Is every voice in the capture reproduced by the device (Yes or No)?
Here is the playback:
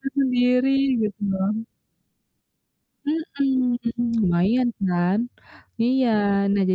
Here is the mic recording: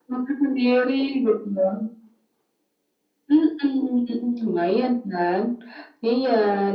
Yes